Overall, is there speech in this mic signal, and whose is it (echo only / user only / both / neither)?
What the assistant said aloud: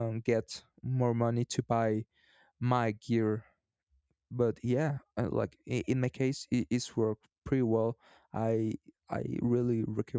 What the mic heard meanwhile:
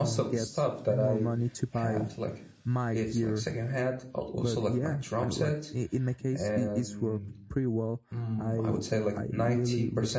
both